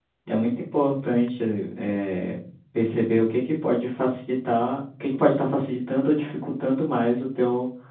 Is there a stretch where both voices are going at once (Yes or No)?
No